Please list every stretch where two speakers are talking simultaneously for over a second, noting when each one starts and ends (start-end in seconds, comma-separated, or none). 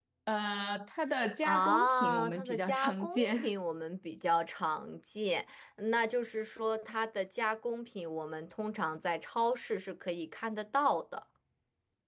1.4-3.5